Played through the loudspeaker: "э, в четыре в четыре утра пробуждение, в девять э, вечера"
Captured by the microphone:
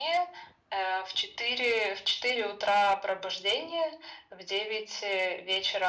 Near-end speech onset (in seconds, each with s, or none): none